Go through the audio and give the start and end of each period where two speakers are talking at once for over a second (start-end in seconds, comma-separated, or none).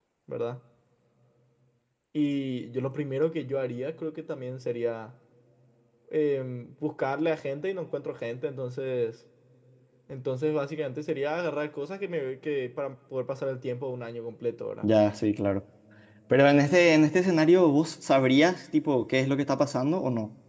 none